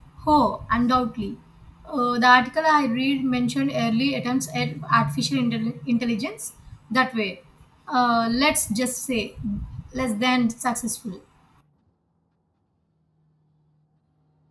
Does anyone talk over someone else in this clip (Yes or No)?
No